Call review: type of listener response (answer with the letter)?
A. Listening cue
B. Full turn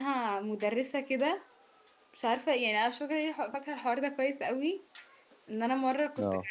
A